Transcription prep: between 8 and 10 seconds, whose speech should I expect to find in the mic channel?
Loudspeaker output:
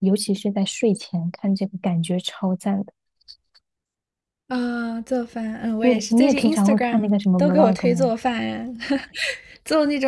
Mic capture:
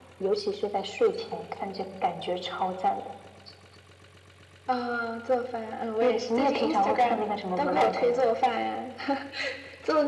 echo only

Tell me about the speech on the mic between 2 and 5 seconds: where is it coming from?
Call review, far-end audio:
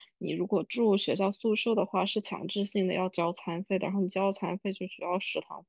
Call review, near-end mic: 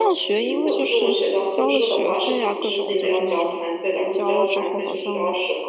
both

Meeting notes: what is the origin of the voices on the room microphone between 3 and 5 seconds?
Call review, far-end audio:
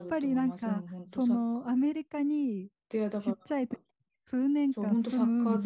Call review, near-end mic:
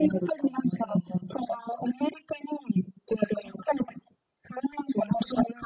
echo only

